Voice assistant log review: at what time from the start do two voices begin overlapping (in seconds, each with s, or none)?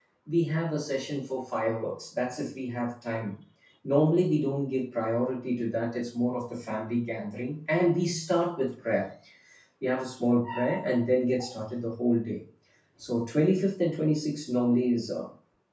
none